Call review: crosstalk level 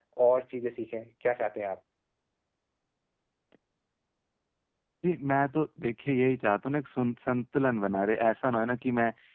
none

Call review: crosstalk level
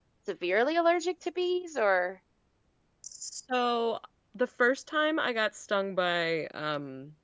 none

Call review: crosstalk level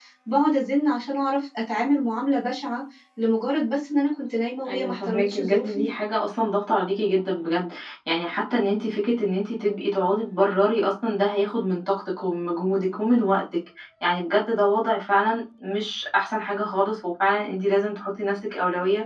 present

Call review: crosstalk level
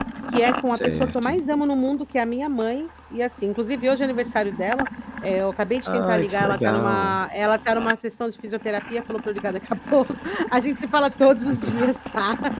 present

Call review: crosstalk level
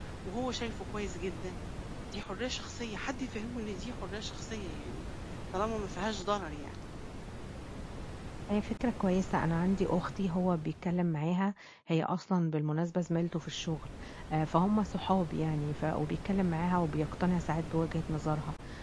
none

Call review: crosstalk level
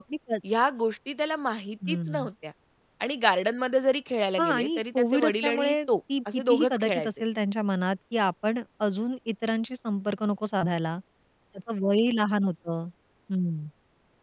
present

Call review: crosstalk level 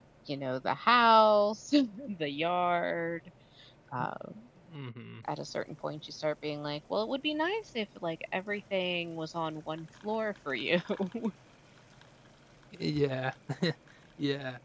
none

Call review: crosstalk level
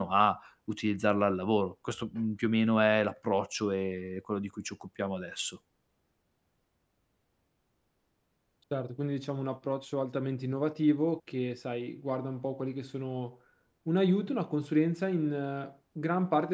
none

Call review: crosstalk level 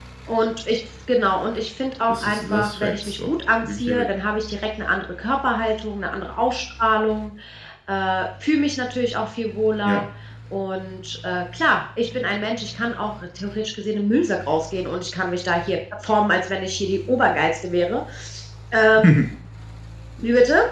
present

